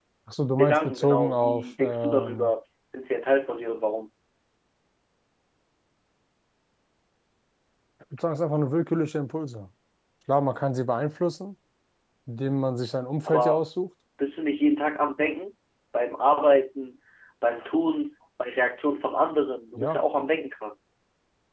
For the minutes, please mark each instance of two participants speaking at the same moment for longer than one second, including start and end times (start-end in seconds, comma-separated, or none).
0.6-2.5